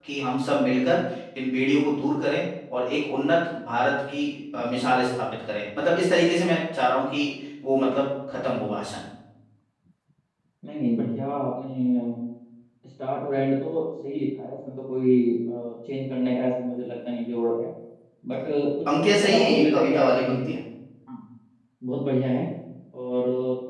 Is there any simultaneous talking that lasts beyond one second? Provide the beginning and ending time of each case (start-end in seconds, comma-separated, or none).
19.0-20.5